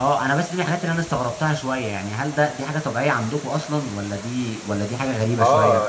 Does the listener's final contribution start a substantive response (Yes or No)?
Yes